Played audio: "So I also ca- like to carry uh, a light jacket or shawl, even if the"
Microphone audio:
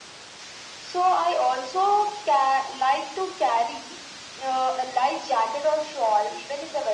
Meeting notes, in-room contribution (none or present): none